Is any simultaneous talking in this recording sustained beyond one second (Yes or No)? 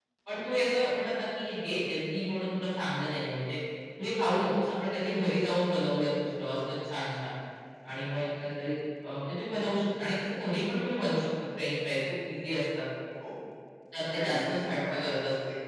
Yes